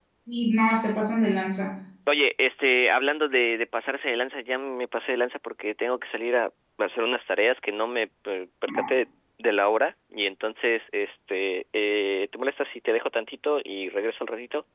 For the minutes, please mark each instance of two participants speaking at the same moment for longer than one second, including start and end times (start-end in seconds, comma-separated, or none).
none